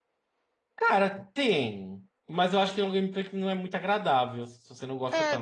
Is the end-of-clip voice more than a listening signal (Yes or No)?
Yes